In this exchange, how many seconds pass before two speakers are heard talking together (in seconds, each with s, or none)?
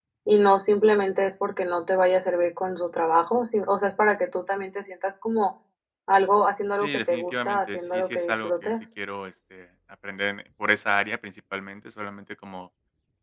6.8 s